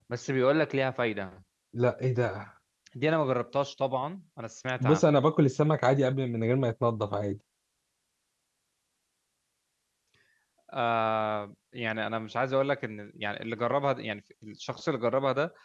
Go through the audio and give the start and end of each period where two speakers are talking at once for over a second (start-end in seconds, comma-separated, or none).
none